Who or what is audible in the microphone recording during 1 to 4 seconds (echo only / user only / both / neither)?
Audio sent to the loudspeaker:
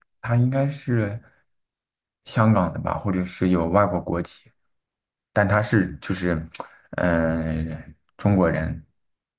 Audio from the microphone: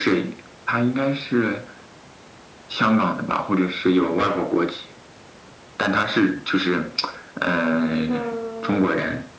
echo only